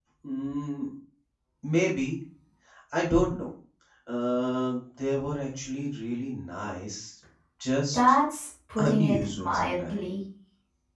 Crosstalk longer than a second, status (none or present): present